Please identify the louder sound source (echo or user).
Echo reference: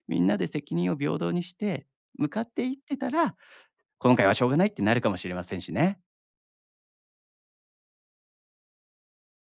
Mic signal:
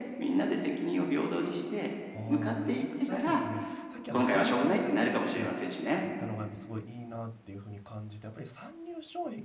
echo